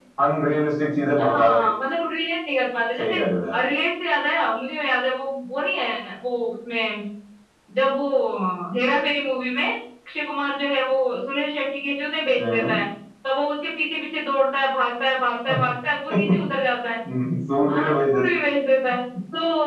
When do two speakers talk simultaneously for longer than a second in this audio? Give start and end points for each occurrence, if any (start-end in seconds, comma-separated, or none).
none